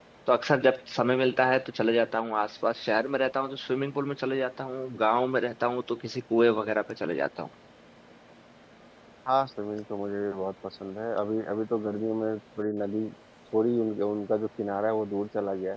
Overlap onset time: none

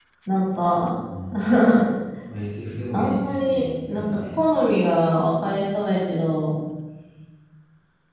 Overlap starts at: 2.9 s

